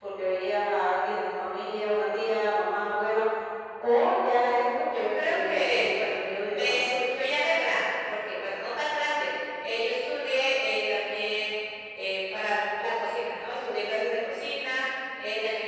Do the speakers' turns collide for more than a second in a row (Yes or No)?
Yes